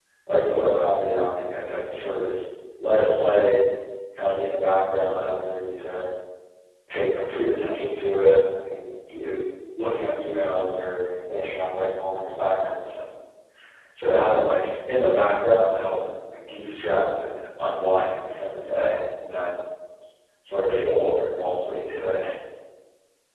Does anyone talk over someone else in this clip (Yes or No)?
No